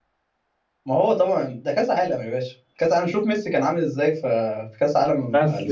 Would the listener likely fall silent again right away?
No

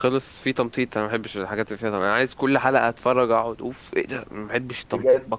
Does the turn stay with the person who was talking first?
No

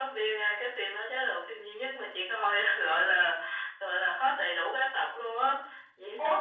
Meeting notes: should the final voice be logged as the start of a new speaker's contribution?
No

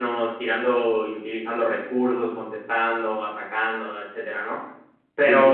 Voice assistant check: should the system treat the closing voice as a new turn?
No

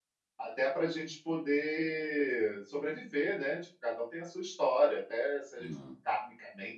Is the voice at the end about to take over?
No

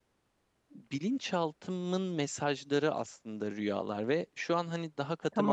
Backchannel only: Yes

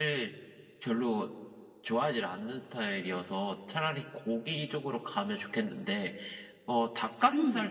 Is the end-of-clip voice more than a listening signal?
No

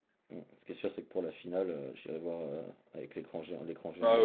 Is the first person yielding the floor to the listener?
Yes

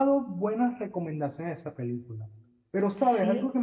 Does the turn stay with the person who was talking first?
Yes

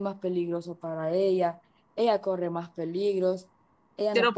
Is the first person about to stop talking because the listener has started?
Yes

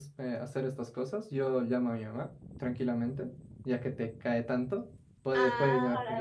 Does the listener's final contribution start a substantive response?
Yes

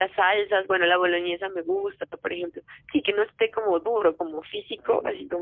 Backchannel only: No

